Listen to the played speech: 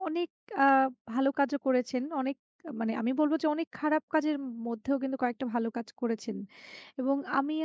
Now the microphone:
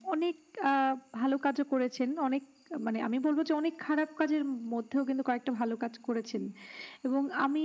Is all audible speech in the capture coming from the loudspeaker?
Yes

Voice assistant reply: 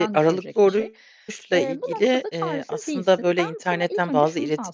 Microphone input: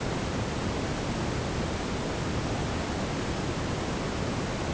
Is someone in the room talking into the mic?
No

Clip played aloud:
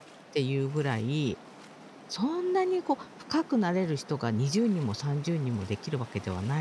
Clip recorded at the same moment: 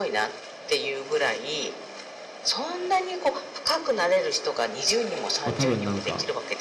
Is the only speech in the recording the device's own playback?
No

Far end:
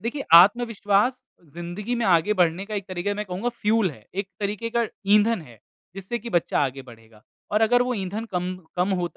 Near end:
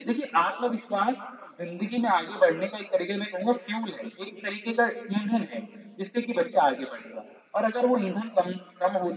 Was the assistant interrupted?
No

